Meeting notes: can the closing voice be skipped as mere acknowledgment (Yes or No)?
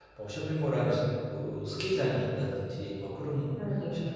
Yes